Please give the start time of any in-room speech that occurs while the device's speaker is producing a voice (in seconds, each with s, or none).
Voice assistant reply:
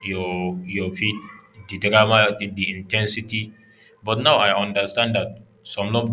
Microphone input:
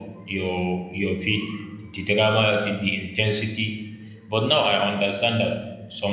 none